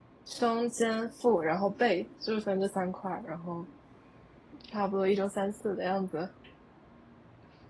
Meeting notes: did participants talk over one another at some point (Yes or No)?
No